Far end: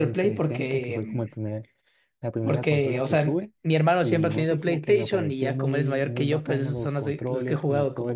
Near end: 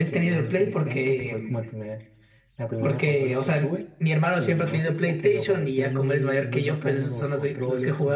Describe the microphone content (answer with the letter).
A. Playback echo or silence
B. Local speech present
A